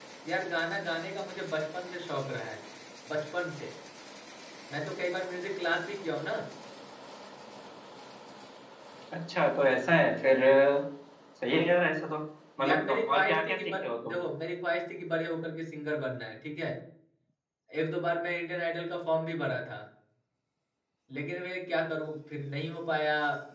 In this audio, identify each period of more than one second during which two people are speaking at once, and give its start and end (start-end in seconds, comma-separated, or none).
12.6-14.1